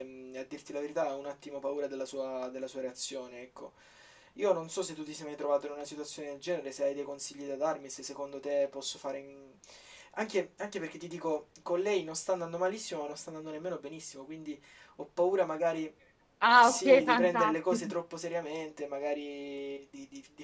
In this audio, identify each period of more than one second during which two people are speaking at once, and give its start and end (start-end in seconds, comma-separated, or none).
16.6-17.9